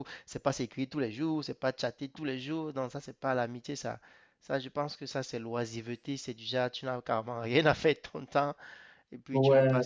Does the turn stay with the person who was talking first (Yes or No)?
Yes